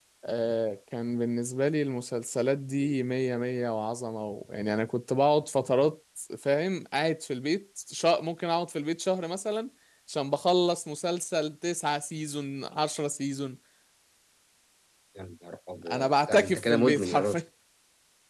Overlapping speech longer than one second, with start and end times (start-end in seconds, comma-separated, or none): 15.9-17.4